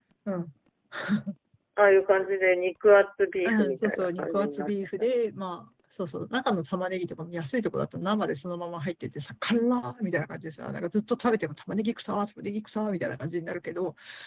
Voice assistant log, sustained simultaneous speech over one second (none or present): present